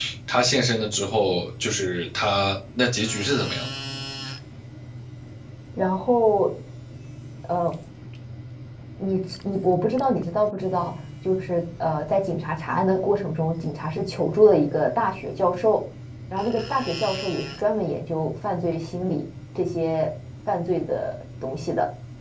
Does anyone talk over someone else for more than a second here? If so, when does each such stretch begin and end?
none

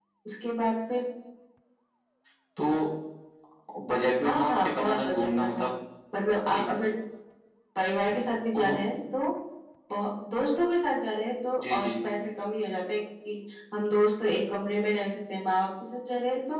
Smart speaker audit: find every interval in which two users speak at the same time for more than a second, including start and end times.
4.2-5.7

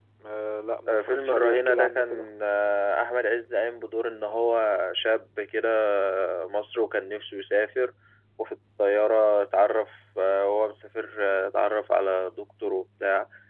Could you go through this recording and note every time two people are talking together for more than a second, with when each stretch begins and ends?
0.9-2.3

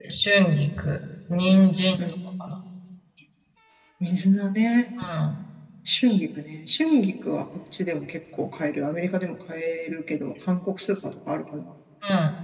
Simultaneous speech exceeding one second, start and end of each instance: none

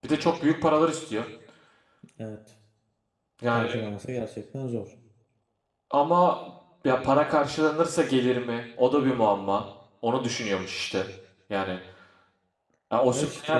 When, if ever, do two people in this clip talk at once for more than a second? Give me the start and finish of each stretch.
none

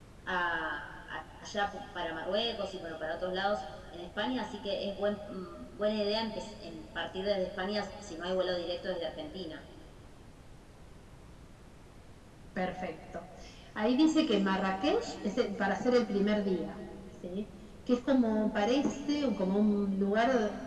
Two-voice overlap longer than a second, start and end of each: none

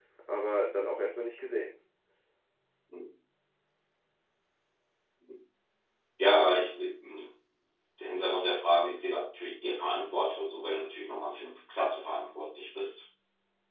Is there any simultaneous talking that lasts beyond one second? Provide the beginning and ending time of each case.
none

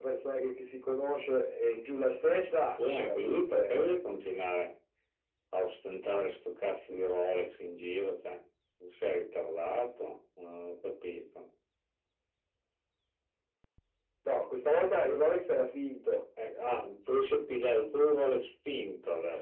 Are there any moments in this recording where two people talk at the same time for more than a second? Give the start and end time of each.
2.4-4.0

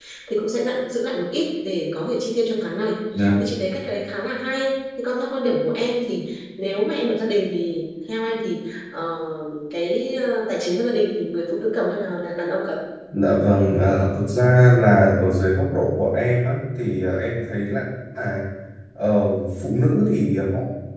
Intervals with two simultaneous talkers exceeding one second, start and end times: none

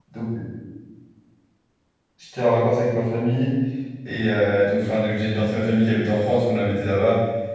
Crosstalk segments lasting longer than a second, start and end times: none

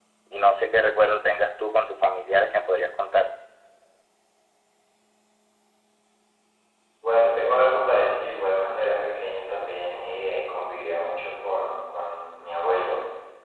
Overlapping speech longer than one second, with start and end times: none

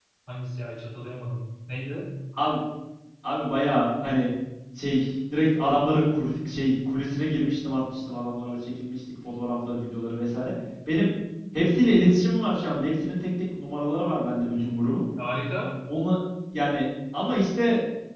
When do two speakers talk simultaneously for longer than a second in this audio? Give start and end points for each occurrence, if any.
none

